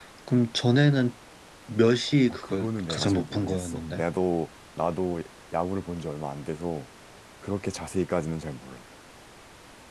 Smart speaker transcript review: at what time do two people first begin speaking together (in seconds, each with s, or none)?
2.3 s